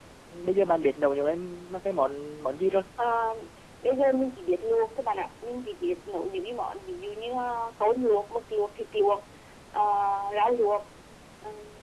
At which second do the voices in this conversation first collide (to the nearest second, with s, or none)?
none